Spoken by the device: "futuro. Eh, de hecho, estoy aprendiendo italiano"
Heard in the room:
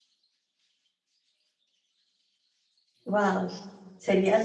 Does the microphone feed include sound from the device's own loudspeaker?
No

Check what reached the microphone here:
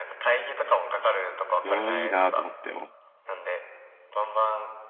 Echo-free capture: No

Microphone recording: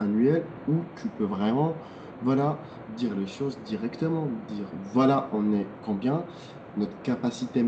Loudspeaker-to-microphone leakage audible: No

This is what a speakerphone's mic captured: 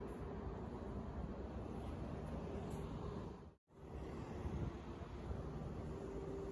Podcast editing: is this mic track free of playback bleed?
Yes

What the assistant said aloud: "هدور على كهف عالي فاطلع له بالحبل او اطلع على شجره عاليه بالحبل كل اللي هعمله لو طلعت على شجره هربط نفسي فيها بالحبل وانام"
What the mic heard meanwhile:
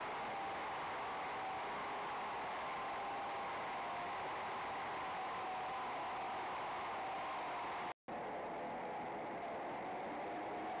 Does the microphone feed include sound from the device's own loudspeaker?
No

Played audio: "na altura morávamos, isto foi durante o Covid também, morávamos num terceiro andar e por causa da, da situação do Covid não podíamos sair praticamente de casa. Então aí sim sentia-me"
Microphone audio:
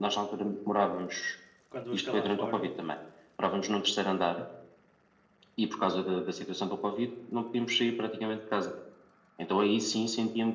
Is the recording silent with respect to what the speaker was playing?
No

